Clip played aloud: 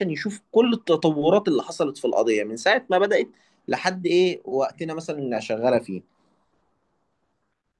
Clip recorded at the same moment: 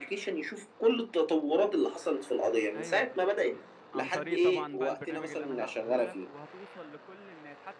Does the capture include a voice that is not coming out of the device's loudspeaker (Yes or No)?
Yes